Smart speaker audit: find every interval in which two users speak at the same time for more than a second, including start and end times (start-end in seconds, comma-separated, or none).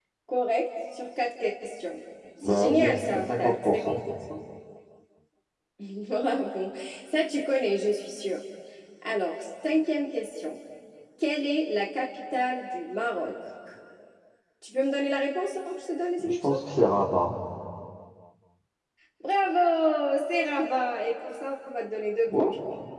2.4-4.0